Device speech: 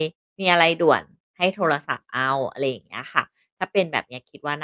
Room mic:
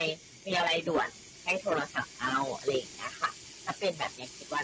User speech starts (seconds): none

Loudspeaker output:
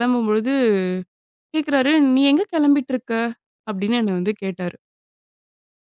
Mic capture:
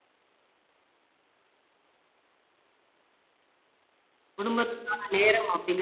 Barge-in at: 4.4 s

